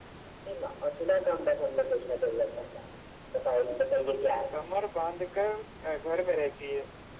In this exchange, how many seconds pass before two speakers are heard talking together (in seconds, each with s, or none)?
none